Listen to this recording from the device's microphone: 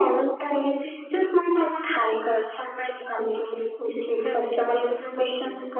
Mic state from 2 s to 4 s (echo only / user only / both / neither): echo only